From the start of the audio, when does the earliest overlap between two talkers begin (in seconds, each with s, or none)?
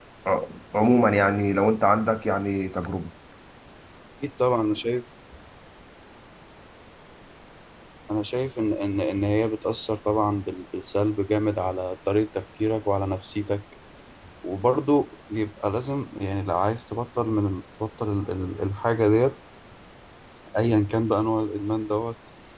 none